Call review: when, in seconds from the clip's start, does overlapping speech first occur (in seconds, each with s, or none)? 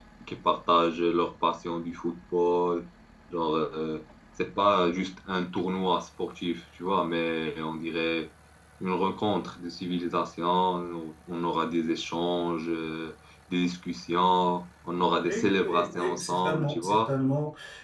15.2 s